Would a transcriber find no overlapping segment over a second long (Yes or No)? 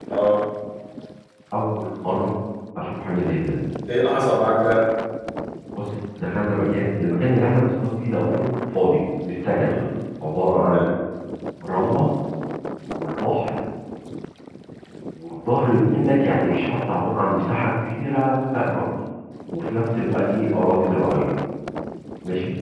Yes